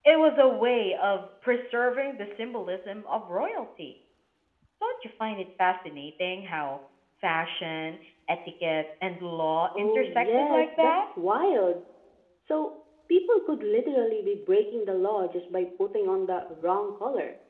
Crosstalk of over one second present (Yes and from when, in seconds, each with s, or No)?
Yes, from 9.7 s